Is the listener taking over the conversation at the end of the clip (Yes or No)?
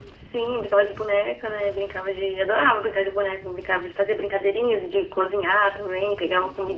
No